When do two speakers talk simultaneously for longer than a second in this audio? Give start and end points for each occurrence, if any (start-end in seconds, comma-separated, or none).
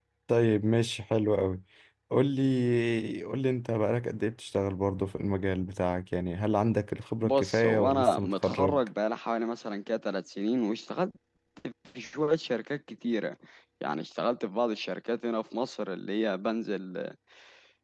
7.2-8.8